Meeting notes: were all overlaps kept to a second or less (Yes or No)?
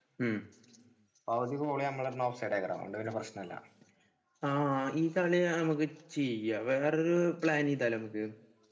Yes